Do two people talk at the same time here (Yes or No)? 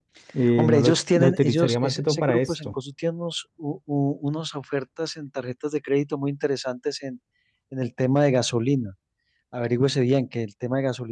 Yes